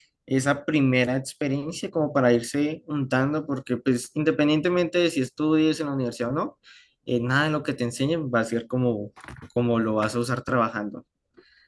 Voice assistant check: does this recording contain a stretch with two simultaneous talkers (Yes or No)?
No